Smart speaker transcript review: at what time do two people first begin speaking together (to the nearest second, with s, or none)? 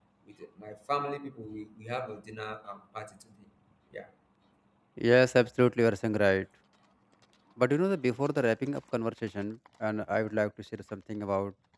none